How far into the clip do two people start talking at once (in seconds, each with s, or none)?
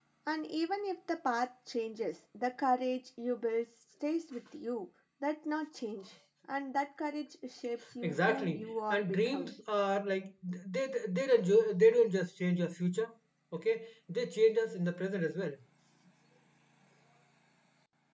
8.0 s